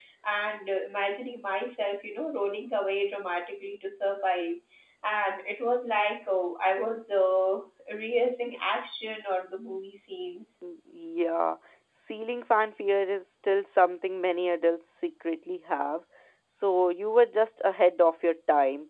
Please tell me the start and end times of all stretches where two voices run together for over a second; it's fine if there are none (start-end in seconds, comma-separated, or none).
none